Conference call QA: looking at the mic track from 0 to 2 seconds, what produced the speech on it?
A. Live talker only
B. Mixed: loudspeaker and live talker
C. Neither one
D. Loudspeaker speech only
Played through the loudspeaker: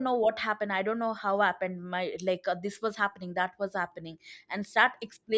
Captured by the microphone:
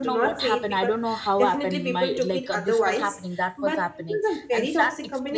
B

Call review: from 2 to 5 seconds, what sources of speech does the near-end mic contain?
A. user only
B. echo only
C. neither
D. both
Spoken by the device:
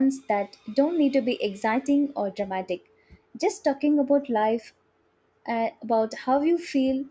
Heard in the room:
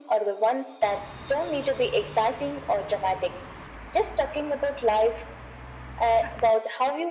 B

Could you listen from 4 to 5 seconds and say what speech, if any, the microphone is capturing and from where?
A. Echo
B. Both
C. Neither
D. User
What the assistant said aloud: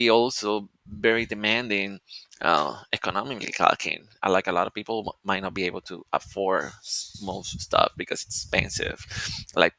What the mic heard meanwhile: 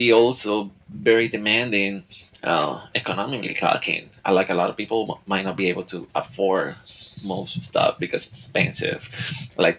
A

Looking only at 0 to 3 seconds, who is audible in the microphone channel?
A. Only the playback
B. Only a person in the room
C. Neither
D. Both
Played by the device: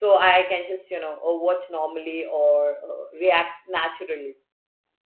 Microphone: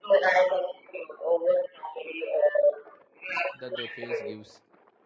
A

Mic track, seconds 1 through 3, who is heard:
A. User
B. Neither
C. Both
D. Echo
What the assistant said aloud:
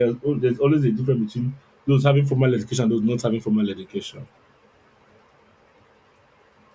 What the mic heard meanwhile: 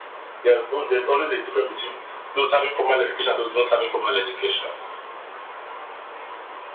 D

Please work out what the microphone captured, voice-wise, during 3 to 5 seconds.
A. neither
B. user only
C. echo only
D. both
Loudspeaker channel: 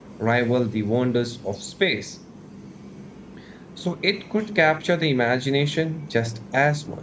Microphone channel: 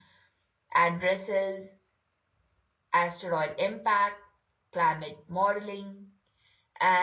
B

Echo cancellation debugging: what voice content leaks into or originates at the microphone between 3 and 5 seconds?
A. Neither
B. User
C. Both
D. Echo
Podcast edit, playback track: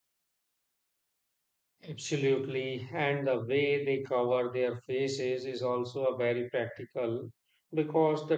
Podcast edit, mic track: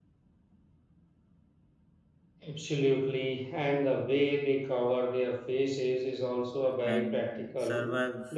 D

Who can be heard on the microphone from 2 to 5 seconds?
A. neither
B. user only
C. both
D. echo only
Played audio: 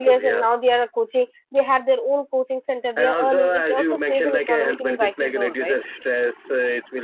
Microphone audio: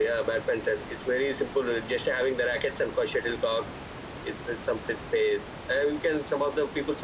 B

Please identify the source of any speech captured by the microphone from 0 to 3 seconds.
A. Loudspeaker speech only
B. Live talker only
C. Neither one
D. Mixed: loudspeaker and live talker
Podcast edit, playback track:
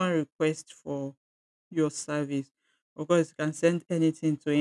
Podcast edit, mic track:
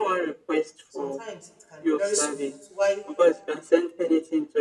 D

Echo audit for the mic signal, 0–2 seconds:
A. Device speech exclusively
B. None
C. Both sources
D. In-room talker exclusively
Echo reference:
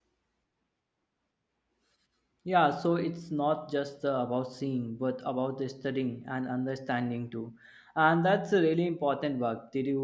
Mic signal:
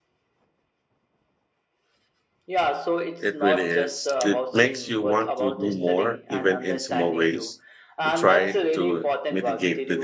B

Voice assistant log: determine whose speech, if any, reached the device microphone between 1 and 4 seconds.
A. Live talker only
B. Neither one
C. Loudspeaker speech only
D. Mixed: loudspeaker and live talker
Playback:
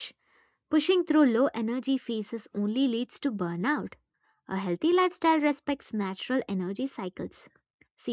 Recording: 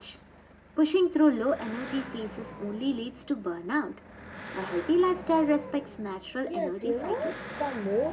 C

